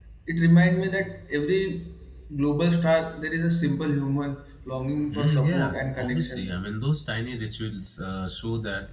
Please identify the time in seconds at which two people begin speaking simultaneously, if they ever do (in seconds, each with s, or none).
5.1 s